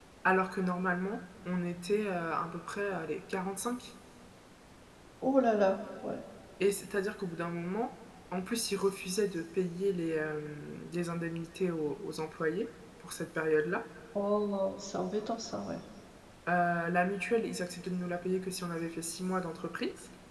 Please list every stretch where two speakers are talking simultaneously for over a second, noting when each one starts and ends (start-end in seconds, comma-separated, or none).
none